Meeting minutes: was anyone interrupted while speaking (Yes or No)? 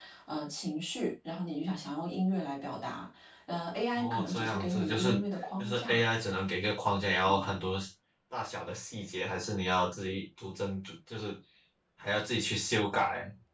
Yes